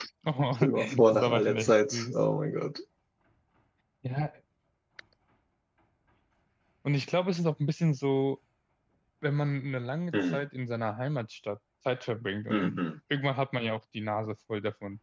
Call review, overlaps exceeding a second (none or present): present